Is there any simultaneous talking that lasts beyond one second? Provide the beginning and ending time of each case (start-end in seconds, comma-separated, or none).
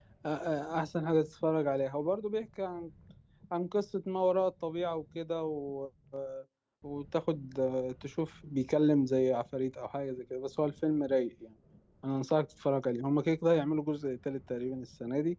none